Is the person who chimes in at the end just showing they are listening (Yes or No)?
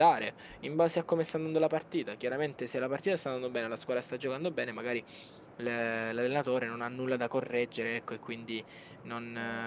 Yes